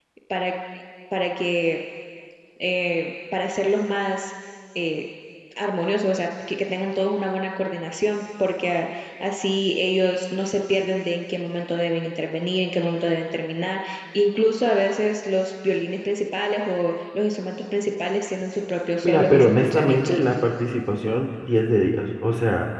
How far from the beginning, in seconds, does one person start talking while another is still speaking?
19.0 s

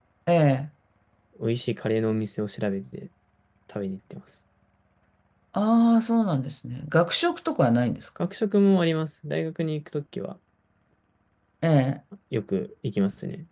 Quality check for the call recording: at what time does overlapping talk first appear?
none

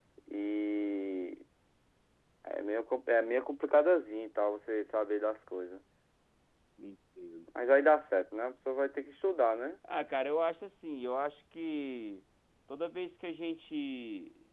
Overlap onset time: none

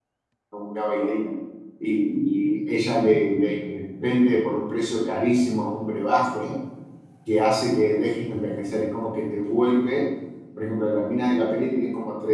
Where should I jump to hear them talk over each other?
none

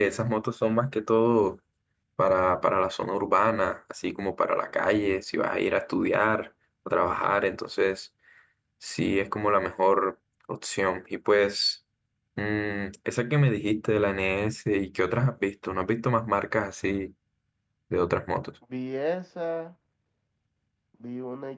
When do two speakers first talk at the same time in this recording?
none

